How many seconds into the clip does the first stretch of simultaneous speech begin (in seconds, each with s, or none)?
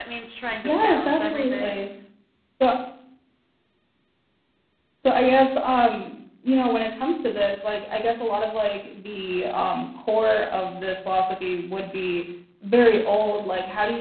0.6 s